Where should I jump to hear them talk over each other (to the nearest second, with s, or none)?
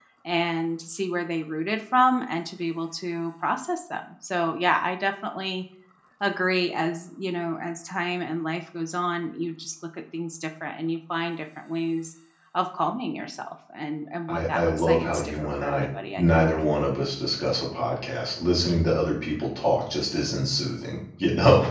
14 s